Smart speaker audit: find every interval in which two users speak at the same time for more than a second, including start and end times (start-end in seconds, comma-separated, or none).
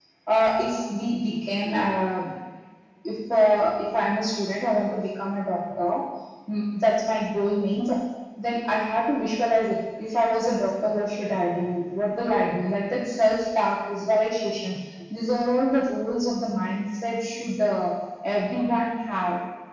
none